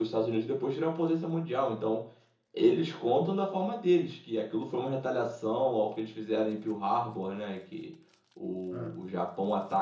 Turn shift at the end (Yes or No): No